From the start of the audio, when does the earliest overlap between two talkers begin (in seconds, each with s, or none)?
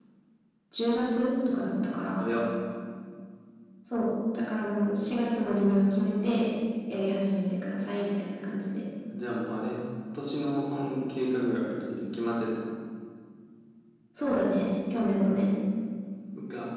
none